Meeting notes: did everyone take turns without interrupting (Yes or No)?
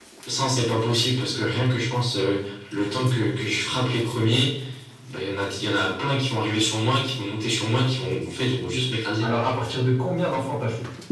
Yes